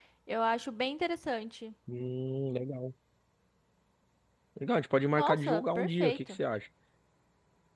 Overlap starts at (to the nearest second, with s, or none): 5 s